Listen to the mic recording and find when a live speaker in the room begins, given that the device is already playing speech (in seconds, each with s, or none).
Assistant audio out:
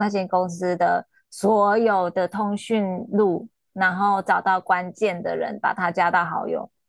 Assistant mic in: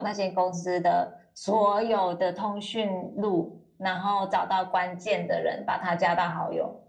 none